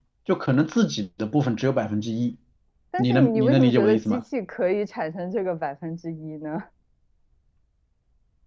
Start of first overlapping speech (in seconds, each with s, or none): 3.0 s